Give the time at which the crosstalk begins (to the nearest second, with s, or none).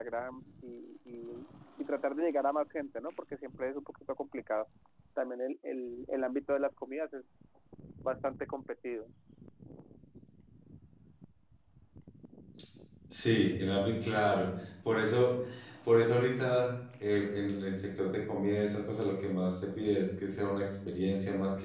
none